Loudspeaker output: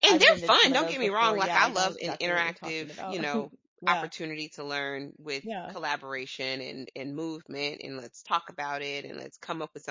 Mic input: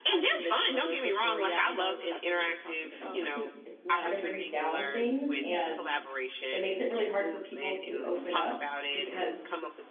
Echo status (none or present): present